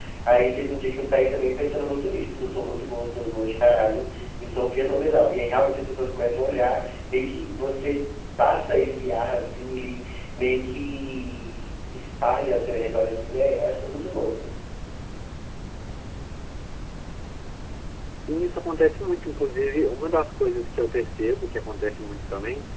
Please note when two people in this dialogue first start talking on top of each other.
none

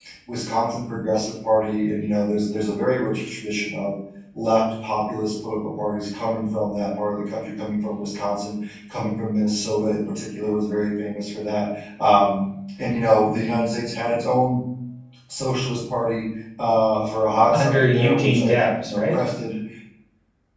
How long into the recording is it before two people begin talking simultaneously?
18 s

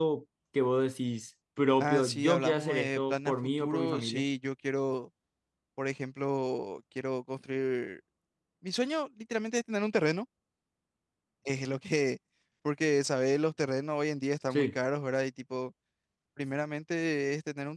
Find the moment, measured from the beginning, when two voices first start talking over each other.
2 s

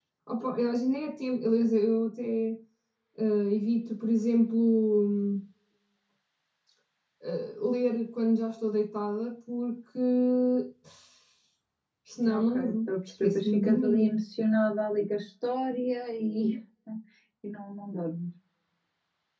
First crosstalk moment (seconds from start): 12 s

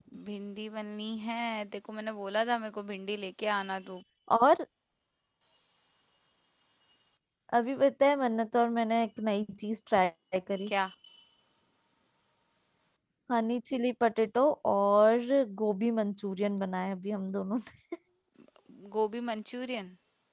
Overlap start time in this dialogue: none

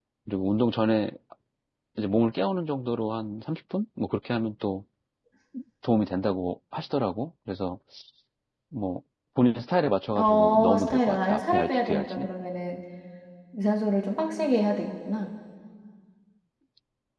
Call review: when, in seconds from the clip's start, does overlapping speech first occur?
10 s

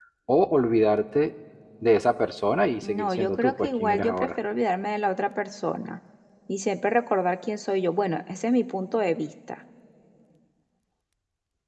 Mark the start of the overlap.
3 s

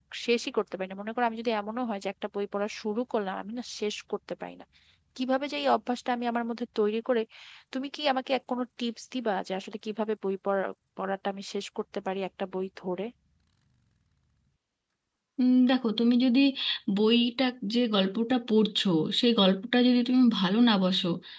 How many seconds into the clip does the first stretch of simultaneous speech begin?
none

